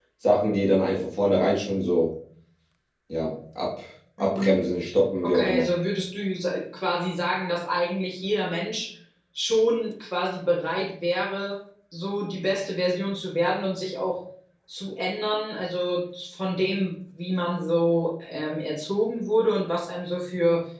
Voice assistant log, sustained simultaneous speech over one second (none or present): none